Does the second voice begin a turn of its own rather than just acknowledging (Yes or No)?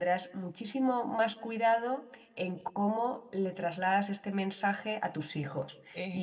No